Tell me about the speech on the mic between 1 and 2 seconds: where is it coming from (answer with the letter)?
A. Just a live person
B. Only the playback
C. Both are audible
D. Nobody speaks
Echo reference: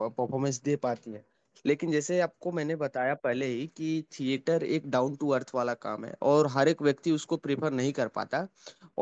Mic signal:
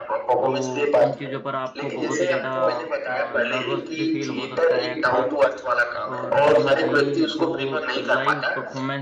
C